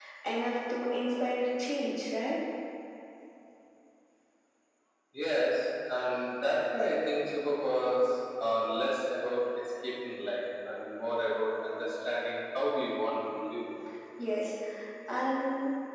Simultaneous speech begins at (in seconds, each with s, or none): none